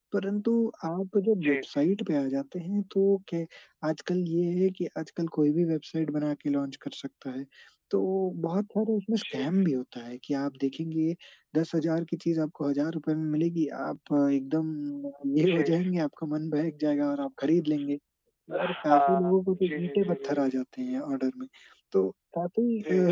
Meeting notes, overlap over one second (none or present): present